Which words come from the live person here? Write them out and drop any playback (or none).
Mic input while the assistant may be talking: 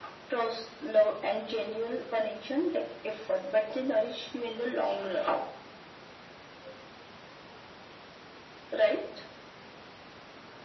none